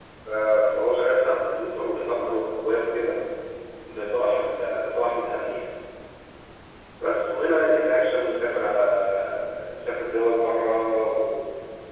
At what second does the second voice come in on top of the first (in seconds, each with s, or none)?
none